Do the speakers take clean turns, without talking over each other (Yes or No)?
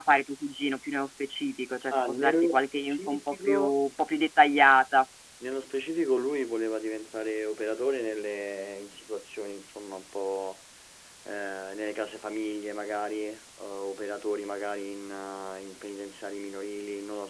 No